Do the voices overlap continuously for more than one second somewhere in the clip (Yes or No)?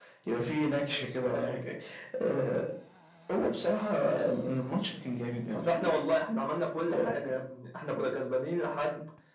No